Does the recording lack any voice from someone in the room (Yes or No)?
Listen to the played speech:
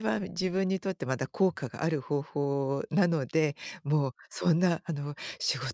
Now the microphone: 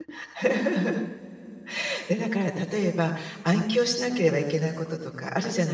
No